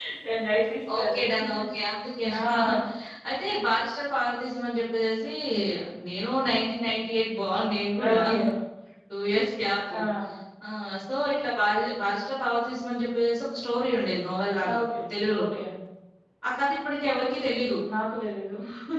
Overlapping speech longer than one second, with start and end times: none

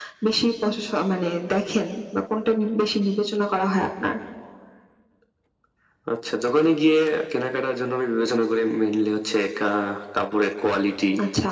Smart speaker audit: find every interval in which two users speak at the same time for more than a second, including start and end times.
none

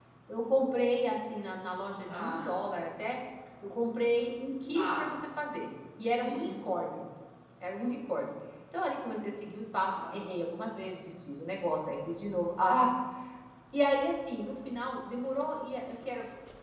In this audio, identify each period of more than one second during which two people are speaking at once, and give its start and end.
none

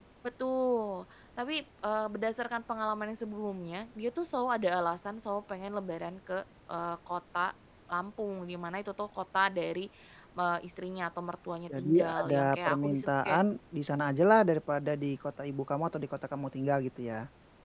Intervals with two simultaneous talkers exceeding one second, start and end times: 11.8-13.4

